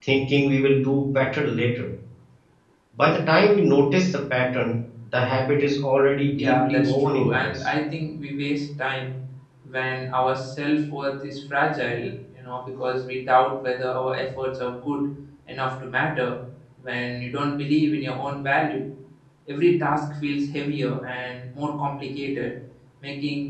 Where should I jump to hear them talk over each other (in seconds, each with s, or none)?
6.4 s